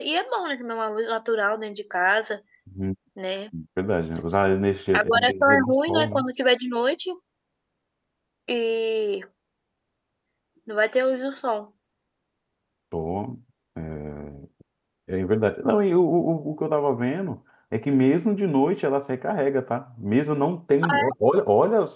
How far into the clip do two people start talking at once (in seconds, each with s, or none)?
4.9 s